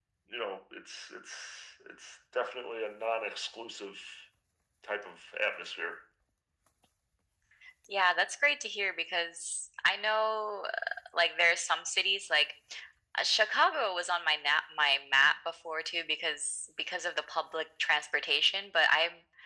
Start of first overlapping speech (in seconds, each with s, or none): none